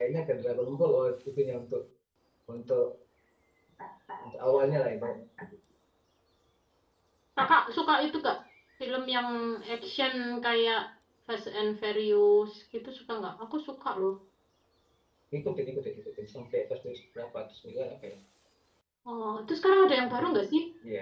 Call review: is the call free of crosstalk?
Yes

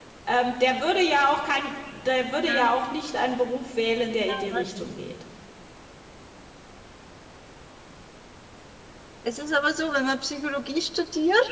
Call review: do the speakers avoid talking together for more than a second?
Yes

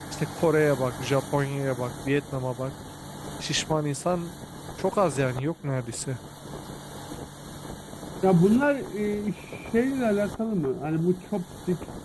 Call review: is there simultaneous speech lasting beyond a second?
No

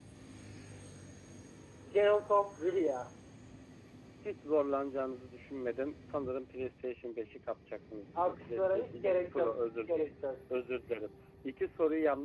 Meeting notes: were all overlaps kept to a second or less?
No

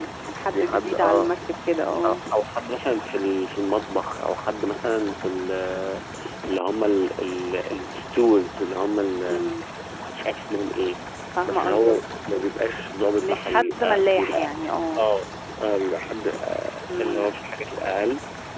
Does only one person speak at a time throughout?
No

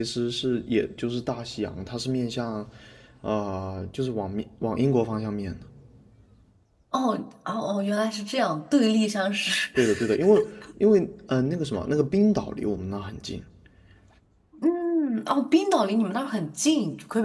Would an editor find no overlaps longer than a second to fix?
Yes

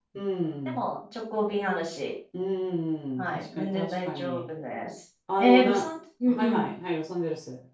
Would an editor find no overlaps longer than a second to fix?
No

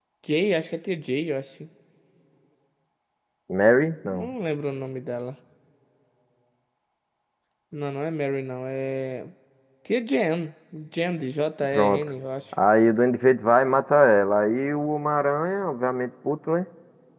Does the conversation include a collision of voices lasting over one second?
No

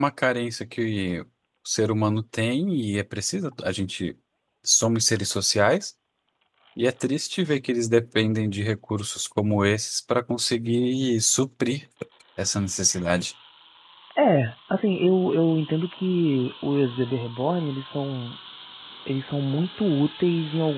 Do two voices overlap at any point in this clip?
No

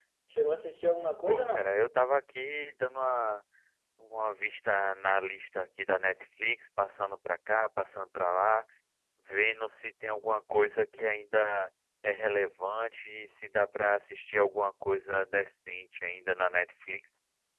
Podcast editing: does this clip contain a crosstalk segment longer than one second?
No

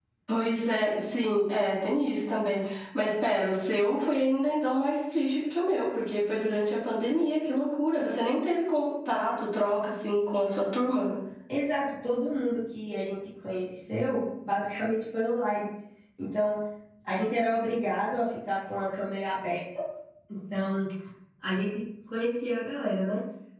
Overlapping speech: No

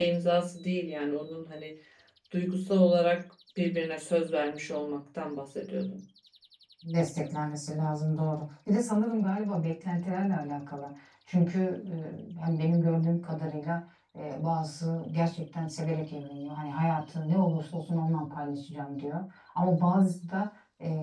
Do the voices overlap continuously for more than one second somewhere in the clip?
No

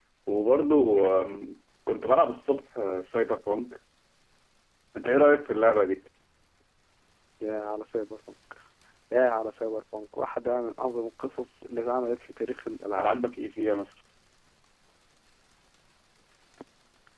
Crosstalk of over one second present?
No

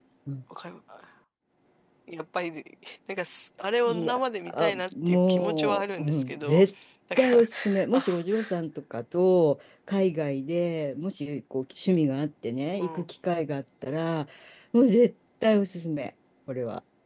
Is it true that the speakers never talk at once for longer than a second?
No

